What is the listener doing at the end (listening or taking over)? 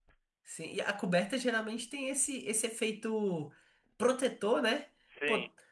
listening